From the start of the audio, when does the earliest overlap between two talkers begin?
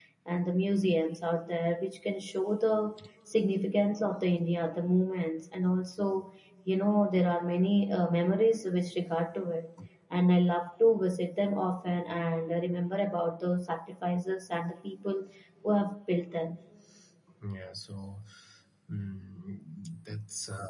none

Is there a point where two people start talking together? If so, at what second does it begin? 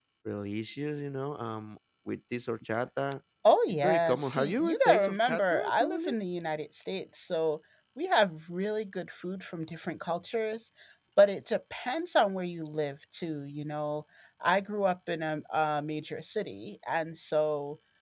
3.8 s

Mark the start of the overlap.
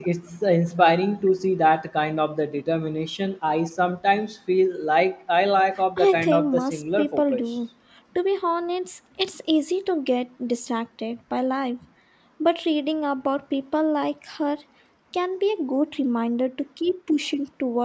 6.0 s

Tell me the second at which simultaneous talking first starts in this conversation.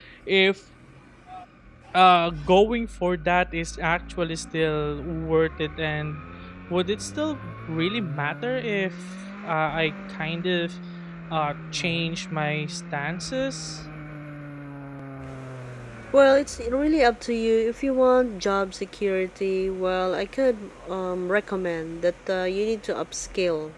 none

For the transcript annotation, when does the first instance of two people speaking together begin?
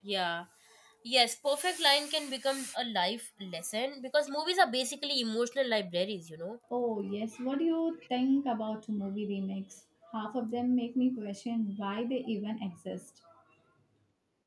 none

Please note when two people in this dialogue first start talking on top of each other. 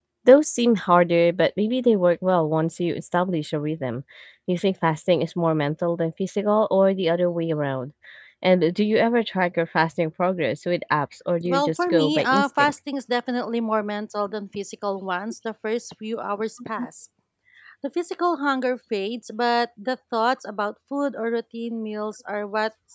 11.4 s

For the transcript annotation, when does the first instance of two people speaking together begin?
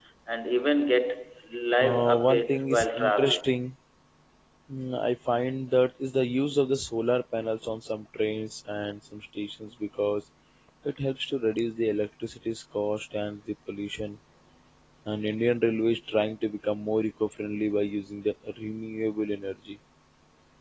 1.8 s

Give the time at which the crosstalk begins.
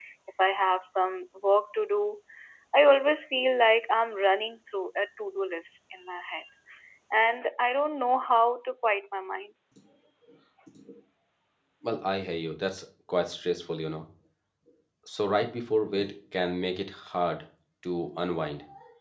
none

